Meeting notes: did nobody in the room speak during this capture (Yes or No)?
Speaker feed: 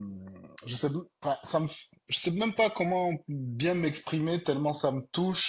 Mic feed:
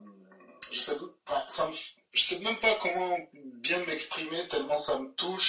Yes